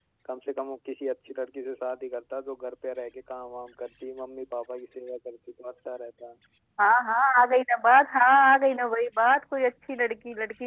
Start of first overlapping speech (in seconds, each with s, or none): none